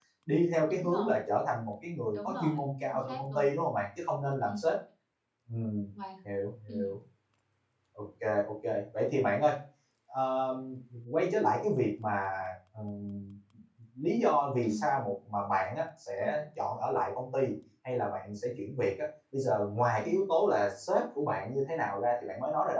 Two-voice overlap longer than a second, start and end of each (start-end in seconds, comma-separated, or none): 2.1-3.6